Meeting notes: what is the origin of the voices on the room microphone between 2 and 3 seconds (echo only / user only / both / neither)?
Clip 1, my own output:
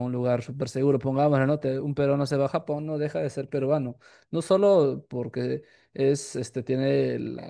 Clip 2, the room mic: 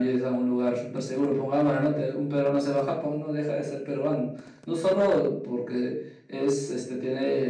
echo only